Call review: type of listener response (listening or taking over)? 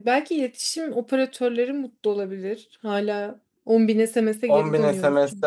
taking over